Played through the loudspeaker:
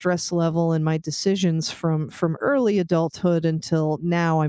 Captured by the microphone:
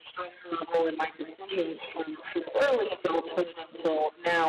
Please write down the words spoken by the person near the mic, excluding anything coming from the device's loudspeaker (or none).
none